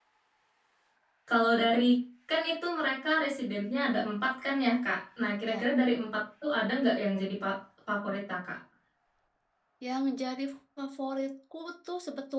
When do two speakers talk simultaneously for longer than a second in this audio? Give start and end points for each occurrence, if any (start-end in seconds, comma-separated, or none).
none